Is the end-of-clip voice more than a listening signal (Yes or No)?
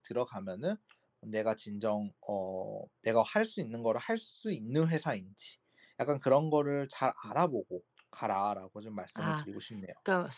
Yes